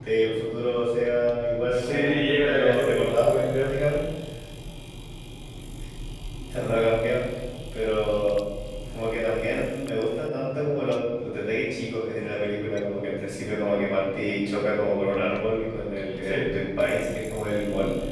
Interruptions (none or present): present